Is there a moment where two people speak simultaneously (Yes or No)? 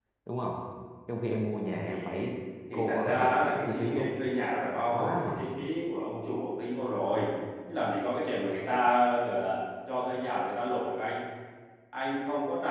Yes